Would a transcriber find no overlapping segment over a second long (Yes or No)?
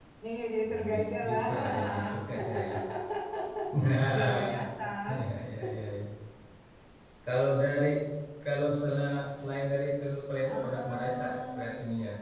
No